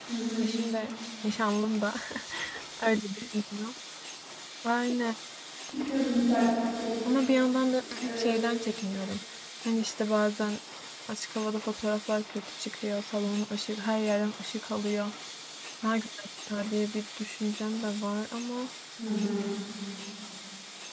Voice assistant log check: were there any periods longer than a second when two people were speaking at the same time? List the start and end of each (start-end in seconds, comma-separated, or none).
none